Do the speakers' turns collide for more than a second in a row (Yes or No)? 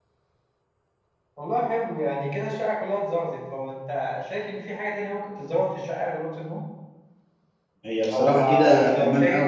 Yes